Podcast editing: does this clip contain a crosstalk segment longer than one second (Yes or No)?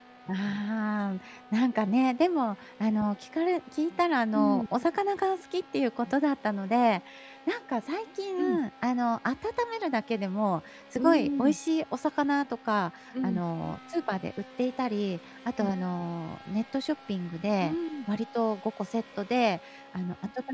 No